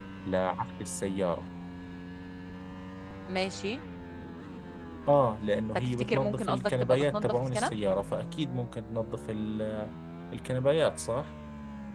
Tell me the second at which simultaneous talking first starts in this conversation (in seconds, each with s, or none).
5.8 s